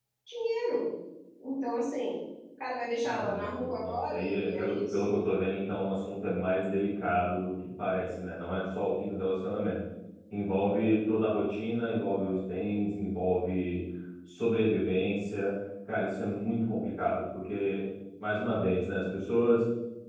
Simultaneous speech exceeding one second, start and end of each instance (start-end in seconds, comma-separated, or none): 3.0-5.3